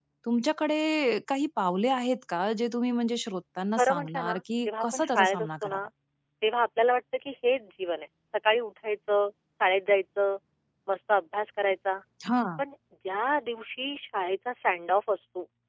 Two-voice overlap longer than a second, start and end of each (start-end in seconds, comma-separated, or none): 3.8-5.8